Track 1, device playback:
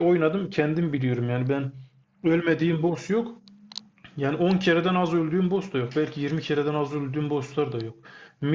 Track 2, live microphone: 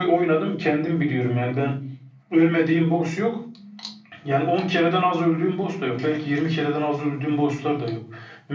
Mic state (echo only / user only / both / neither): echo only